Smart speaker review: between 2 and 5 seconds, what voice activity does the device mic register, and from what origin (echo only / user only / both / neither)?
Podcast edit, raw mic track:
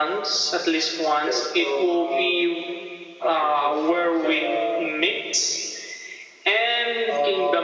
echo only